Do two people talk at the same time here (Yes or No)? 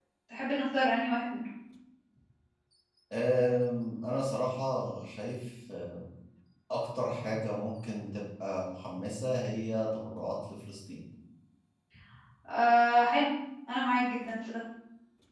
No